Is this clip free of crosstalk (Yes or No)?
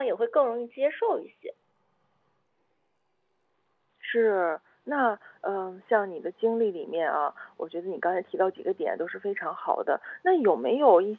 Yes